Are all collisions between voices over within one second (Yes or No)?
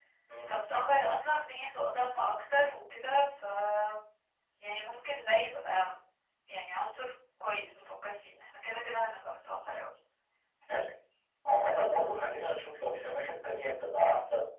Yes